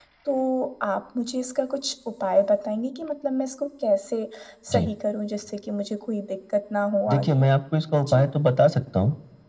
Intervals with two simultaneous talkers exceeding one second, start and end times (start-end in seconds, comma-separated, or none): none